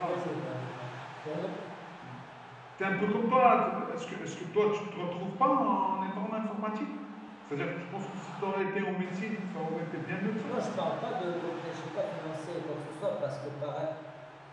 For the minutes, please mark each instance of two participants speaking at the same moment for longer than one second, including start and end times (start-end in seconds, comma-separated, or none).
none